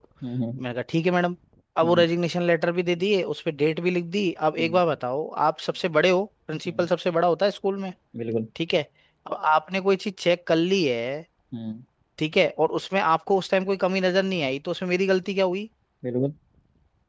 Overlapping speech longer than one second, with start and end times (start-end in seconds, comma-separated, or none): none